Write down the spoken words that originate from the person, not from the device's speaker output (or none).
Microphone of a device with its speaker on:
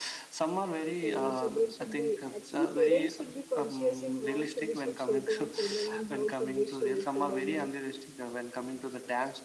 So children should be actually parents should be conscious in what we should show to our children and how should we show it to them and